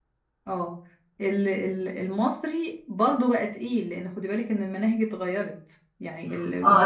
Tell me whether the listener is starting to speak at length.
Yes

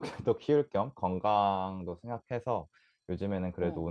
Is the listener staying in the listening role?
Yes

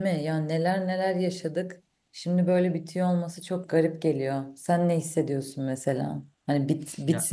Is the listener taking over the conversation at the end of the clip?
No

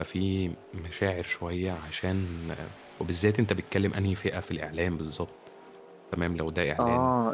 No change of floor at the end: No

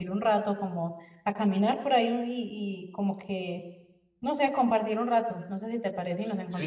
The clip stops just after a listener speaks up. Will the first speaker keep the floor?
No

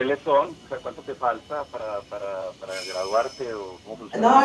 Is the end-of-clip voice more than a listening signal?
Yes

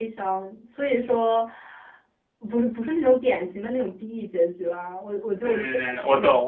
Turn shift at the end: Yes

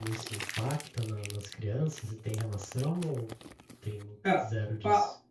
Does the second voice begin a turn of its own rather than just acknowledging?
Yes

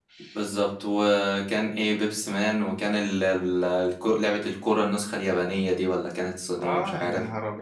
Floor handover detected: Yes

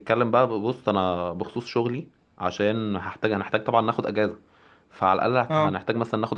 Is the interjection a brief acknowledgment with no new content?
Yes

